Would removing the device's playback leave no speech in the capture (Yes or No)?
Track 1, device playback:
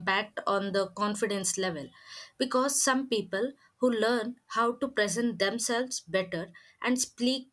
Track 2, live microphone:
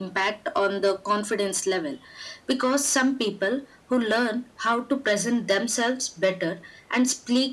Yes